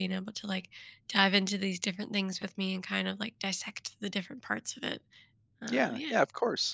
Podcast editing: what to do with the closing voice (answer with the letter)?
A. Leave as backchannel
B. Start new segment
B